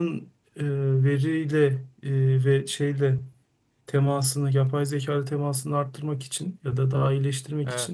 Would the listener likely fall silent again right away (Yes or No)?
Yes